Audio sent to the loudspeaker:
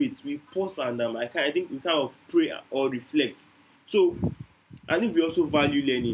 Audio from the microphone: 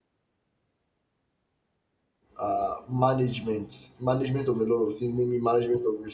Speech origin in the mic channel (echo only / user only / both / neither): user only